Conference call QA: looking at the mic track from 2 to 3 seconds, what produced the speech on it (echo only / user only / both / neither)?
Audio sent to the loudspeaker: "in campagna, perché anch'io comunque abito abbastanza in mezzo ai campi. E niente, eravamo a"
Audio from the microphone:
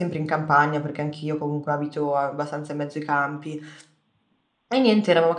echo only